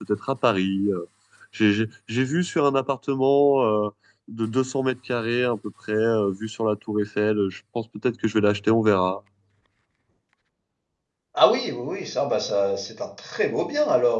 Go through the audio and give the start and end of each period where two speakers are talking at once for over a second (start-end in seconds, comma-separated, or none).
none